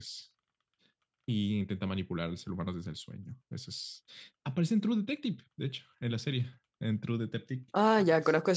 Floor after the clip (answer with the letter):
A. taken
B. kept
A